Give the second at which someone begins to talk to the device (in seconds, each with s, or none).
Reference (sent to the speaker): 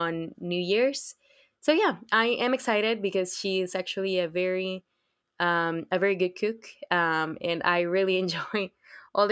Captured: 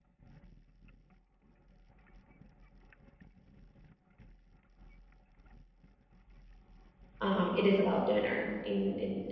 7.2 s